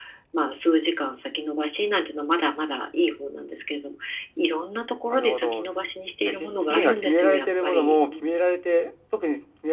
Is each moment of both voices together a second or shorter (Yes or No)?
No